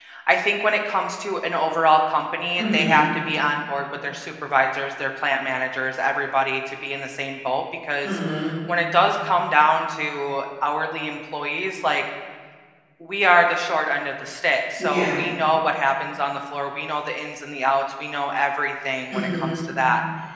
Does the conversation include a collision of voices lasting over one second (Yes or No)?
No